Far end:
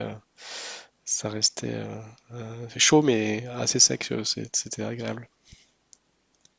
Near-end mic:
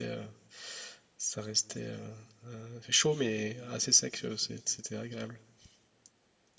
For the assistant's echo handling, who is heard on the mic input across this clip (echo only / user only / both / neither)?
echo only